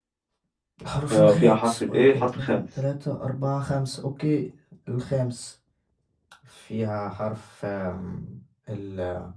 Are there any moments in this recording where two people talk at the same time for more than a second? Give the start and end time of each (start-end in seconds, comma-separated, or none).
1.1-2.6